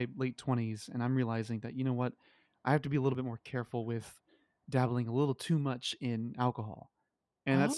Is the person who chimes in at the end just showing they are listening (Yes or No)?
Yes